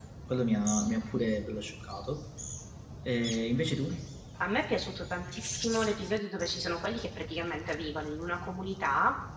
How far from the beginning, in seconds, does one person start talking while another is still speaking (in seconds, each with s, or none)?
none